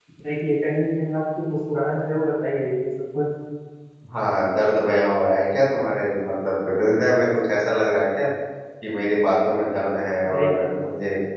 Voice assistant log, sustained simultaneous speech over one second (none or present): none